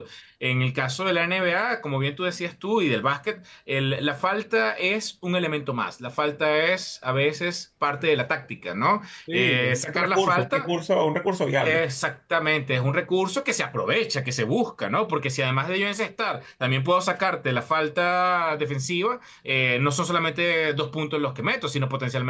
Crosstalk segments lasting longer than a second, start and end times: 9.3-10.7

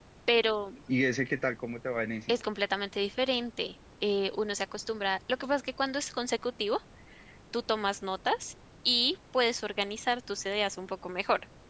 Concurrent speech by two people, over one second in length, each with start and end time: none

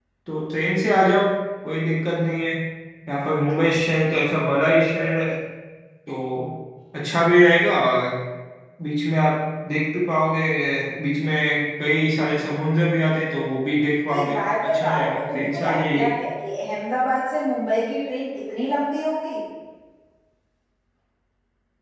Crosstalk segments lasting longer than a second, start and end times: 14.1-16.1

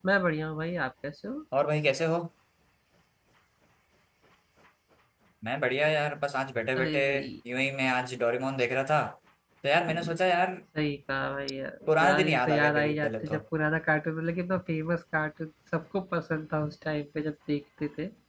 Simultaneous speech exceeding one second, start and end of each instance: 11.9-13.4

